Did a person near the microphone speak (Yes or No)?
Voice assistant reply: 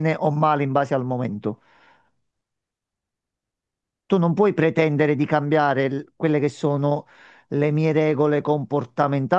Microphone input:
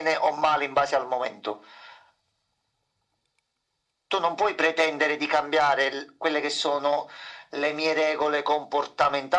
No